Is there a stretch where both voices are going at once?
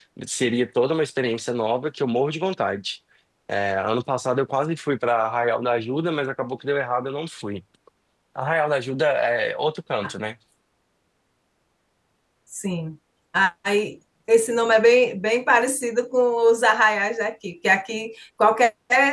No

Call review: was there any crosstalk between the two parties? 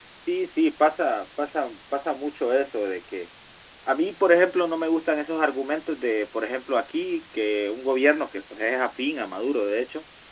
No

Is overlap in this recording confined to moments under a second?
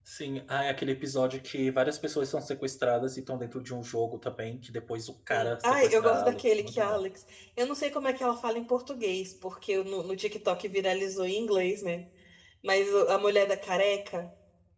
No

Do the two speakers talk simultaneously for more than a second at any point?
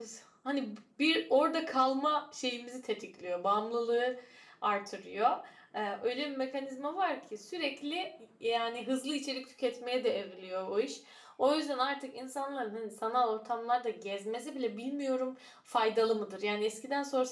No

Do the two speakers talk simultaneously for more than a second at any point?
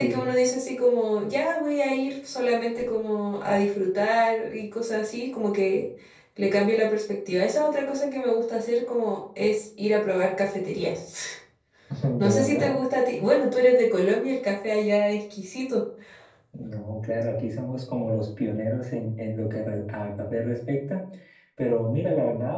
No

